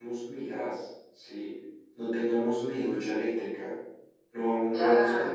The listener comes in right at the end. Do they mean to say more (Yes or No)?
Yes